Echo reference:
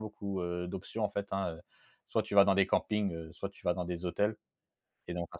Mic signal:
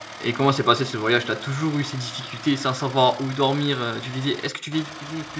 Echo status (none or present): none